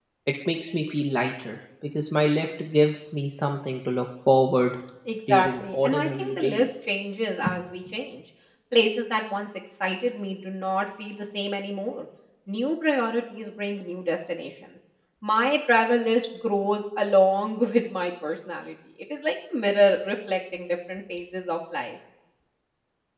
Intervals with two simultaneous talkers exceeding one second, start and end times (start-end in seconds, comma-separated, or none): 5.3-6.7